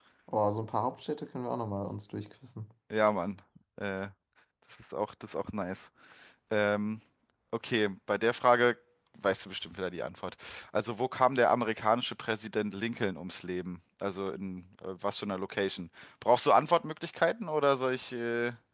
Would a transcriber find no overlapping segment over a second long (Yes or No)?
Yes